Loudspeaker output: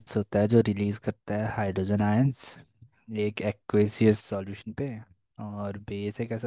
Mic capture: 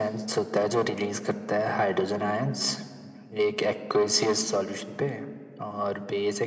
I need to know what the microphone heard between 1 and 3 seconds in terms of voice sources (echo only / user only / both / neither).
echo only